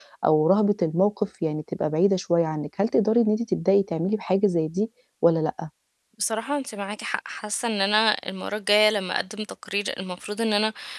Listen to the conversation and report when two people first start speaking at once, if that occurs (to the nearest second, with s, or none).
none